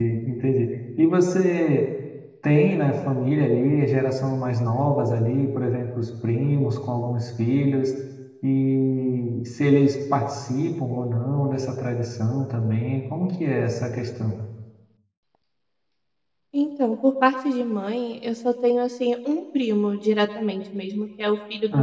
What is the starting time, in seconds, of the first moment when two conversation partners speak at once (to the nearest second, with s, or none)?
none